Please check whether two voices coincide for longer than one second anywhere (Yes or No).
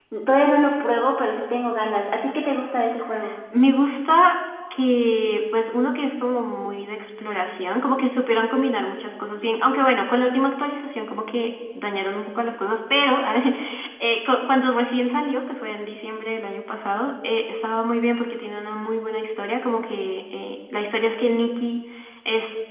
No